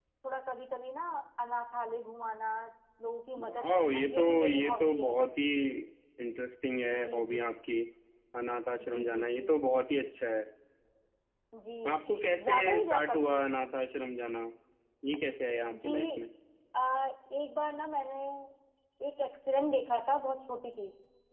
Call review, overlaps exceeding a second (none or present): present